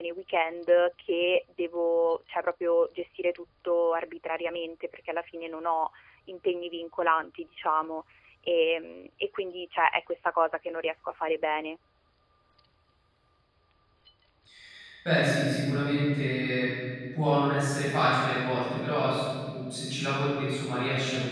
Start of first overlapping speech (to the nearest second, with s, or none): none